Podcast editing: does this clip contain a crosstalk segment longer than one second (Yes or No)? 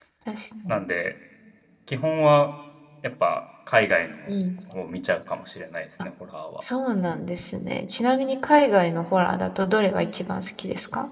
No